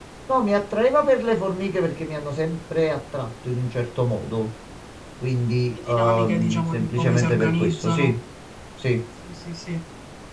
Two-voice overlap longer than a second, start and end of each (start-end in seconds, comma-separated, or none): 5.7-8.1